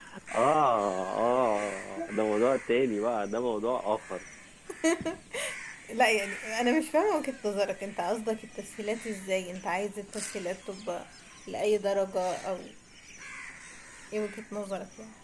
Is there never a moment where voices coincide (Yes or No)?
Yes